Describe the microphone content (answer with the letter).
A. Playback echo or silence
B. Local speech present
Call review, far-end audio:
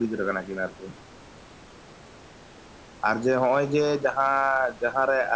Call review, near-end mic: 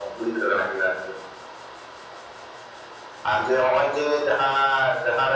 A